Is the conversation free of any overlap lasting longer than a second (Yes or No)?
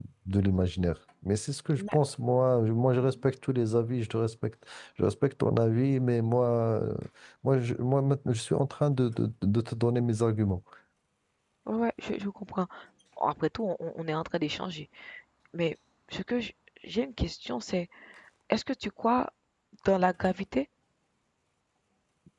Yes